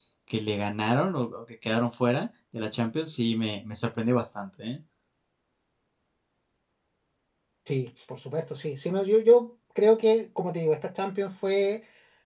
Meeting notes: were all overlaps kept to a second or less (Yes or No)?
Yes